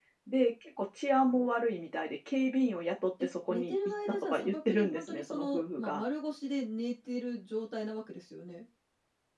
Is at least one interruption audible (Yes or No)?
Yes